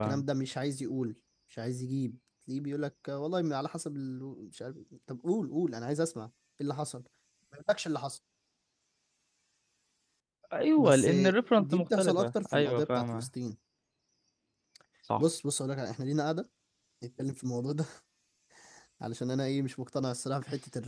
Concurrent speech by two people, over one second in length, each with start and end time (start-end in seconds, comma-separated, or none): 11.6-13.3